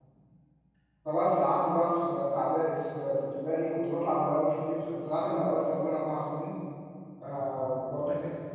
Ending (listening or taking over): listening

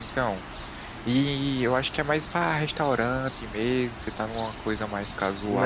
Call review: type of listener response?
taking over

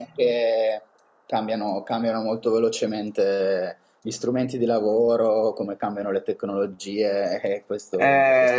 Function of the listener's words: taking over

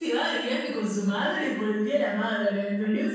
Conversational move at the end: taking over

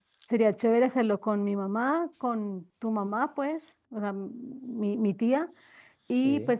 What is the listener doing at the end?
listening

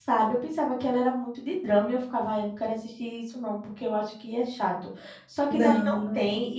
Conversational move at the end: listening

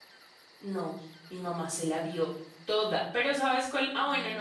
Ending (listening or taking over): listening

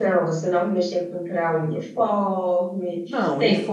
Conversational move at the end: taking over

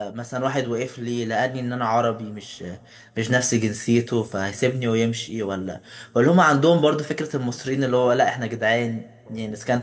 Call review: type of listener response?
listening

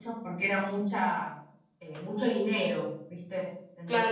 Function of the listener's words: taking over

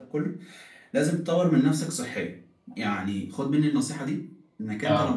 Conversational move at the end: listening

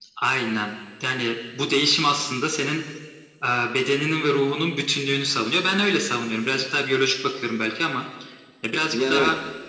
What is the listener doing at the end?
taking over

